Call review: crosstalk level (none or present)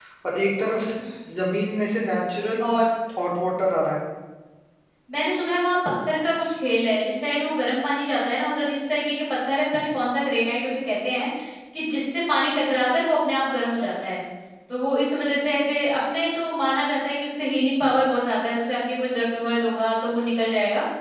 none